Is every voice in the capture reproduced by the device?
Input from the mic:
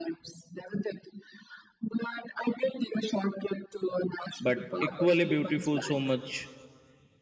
No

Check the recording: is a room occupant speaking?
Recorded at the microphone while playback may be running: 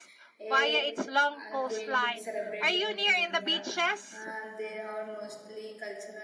Yes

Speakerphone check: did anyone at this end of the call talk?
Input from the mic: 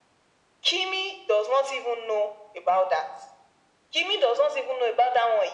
No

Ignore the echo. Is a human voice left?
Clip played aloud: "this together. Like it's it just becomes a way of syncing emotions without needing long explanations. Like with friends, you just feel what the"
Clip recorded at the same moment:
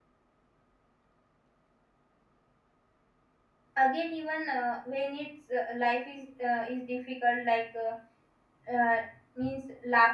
Yes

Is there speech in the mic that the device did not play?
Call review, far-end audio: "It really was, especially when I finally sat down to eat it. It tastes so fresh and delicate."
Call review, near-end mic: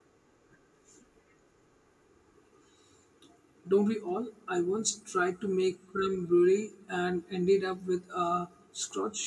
Yes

